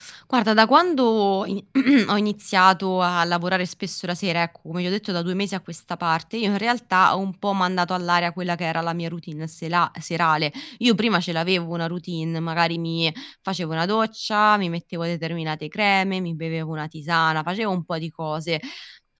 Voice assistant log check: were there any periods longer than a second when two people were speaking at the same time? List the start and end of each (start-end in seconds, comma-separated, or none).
none